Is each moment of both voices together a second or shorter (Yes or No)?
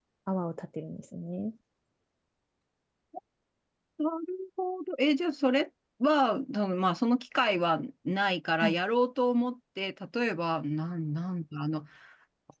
Yes